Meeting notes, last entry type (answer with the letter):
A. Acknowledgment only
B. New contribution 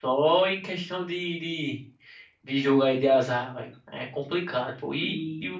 A